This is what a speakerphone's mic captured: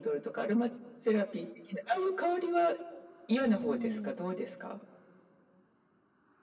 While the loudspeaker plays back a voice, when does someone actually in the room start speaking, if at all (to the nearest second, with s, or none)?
3 s